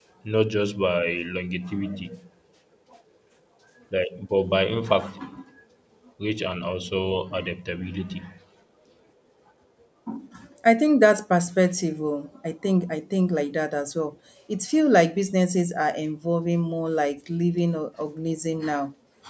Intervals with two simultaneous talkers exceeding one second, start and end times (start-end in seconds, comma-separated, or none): none